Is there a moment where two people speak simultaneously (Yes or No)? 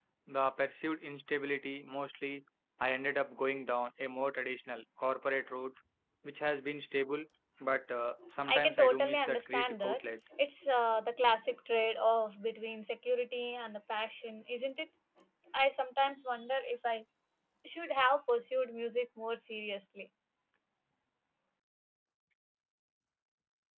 Yes